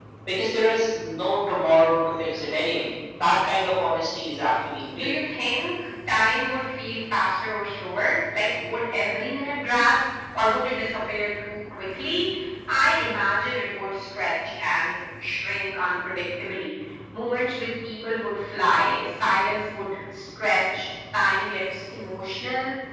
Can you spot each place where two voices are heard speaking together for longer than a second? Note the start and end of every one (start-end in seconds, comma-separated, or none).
none